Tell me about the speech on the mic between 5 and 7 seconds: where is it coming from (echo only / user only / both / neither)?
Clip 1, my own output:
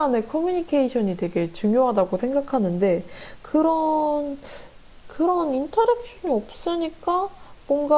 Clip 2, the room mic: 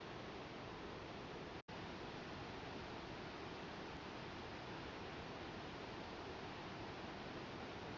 neither